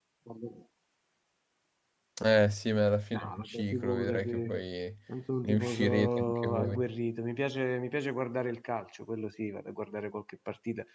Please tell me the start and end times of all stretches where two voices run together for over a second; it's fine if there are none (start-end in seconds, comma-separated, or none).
3.1-4.5, 5.4-6.9